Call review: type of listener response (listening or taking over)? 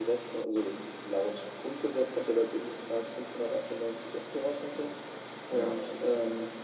listening